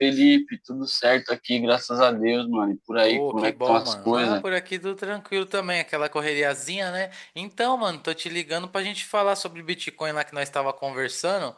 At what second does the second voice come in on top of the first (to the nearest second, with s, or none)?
3 s